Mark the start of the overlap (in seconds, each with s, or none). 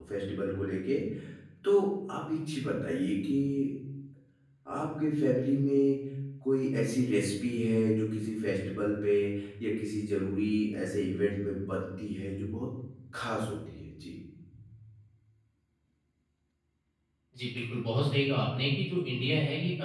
none